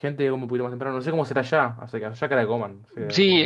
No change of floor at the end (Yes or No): No